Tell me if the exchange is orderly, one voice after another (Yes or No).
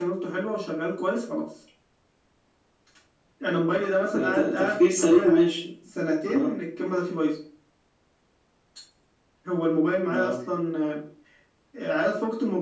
No